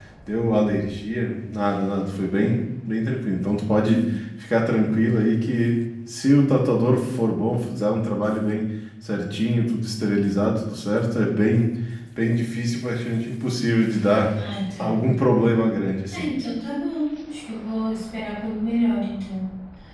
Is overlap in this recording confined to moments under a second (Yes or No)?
Yes